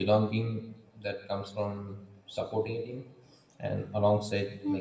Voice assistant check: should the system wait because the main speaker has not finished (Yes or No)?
Yes